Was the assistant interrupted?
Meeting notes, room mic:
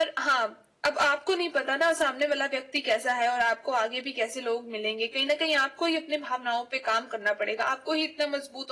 No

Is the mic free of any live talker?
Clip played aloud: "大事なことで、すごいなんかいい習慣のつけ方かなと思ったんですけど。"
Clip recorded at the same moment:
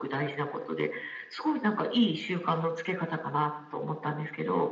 Yes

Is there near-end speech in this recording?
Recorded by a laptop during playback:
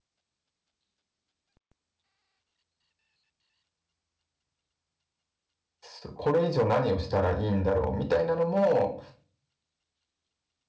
Yes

